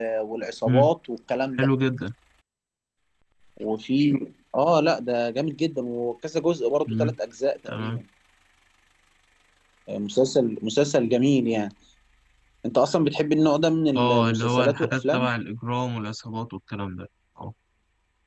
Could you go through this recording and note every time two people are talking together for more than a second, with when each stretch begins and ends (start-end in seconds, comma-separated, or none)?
13.9-15.3